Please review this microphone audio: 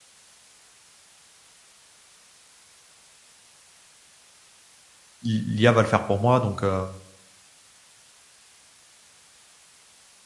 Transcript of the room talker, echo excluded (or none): L'i l'IA va le faire pour moi donc, heu,